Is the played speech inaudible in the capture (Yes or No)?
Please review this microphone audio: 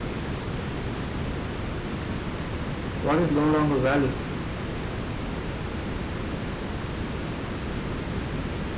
Yes